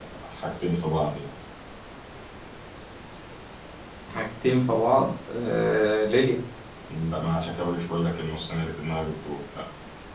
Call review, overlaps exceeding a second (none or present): none